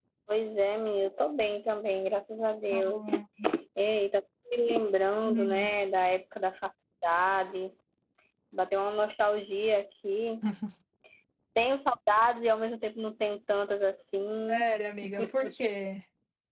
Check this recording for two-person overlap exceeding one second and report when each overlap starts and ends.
none

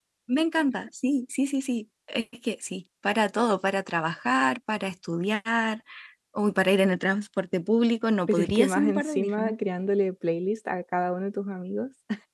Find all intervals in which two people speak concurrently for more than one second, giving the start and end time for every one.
8.3-9.5

